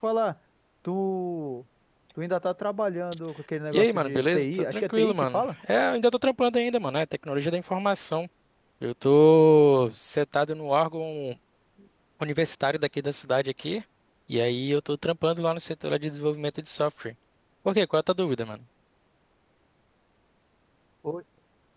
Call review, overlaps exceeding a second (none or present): present